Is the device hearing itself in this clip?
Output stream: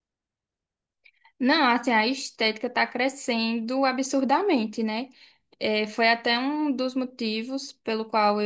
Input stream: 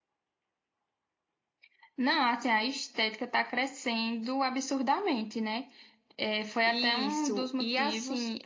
Yes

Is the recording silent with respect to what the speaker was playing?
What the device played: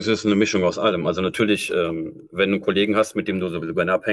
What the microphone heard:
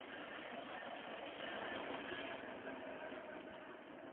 Yes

